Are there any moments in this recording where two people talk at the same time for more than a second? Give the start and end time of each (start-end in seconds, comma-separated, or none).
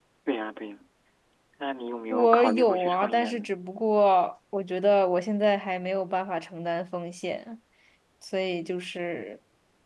2.1-3.5